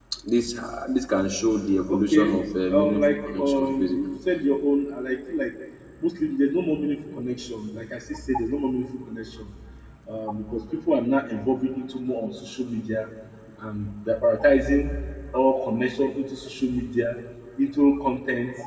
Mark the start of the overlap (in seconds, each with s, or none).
1.9 s